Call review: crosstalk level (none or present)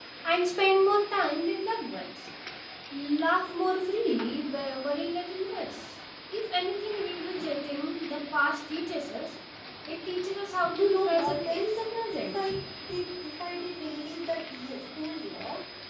present